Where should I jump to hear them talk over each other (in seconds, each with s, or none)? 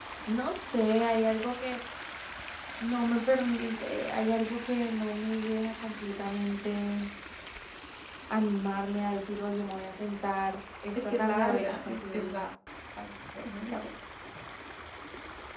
10.9 s